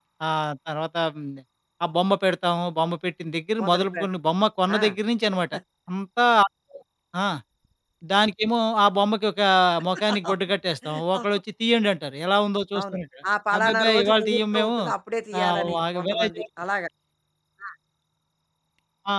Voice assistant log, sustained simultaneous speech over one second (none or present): present